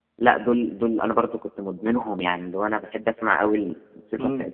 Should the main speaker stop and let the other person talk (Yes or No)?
No